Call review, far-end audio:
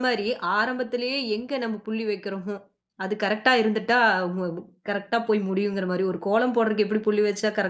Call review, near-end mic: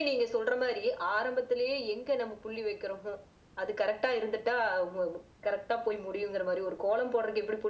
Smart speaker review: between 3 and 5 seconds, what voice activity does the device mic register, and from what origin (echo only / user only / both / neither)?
echo only